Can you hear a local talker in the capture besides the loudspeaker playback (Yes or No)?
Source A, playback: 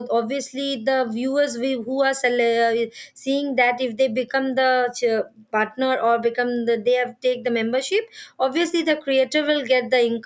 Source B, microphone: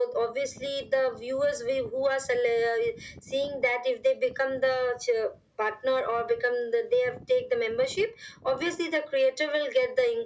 No